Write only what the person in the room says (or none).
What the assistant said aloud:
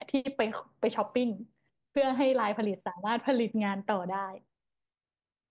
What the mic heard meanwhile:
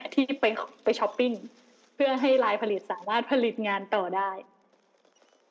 none